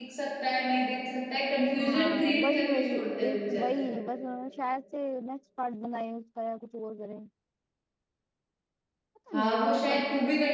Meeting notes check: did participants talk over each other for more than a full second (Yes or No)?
Yes